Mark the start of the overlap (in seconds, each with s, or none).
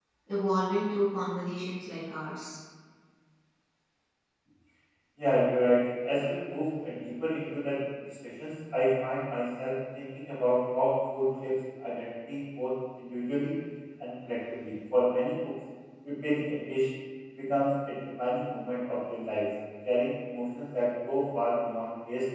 none